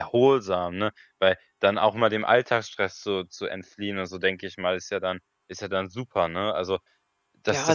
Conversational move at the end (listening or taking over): taking over